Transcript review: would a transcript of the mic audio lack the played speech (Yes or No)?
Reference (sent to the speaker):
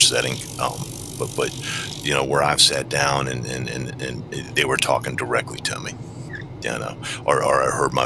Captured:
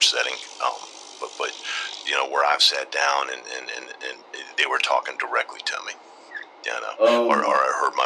No